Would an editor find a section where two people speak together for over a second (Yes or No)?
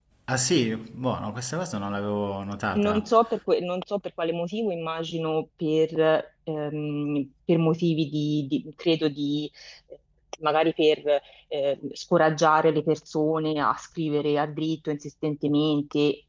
No